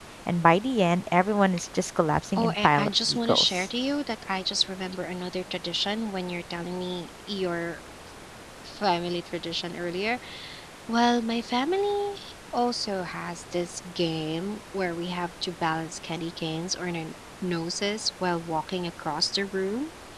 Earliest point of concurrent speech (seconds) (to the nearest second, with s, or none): 2 s